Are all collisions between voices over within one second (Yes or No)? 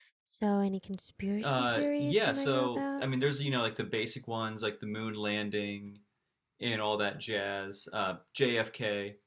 No